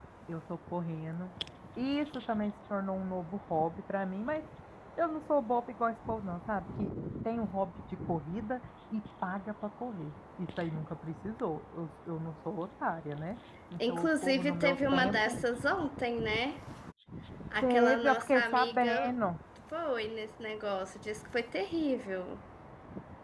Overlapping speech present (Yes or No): Yes